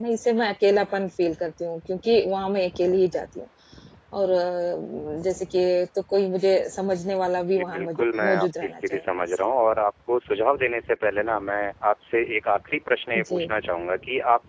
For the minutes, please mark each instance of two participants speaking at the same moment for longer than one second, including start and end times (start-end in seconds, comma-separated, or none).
7.5-9.0